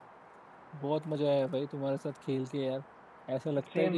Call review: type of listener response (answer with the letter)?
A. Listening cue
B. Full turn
A